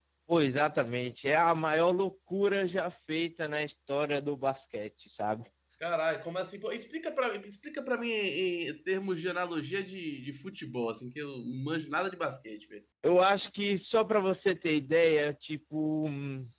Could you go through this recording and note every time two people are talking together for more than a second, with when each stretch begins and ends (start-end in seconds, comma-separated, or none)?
none